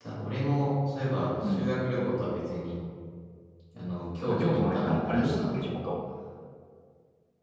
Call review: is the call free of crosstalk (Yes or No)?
No